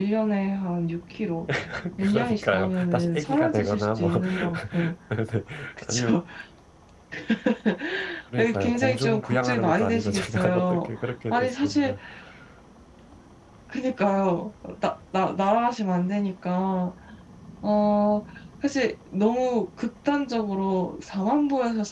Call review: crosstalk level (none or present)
present